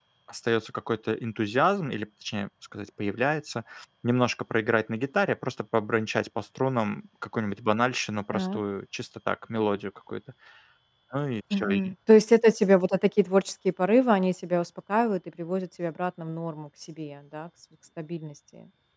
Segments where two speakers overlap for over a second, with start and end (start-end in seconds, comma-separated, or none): none